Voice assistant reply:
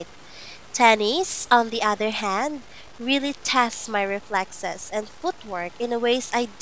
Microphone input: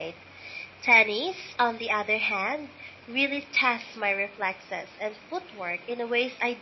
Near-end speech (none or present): none